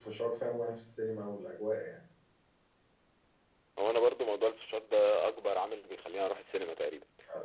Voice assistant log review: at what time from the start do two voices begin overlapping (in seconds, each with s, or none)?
none